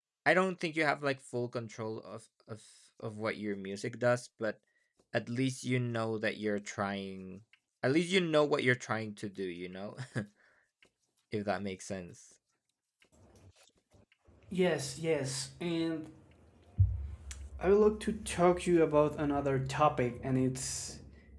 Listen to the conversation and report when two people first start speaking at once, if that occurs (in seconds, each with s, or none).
none